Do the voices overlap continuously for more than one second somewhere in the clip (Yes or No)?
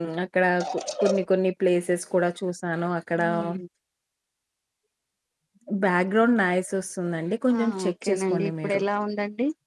Yes